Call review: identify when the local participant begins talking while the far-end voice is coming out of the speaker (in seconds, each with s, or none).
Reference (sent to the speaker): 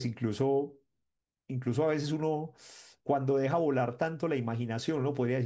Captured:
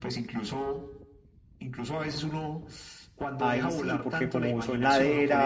3.4 s